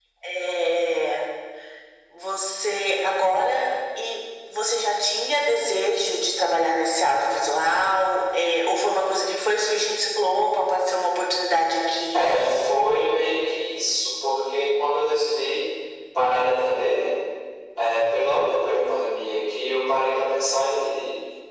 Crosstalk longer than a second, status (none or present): none